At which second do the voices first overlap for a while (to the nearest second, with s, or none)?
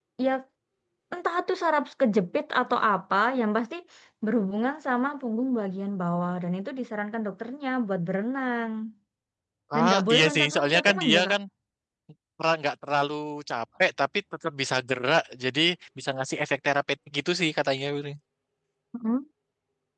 10 s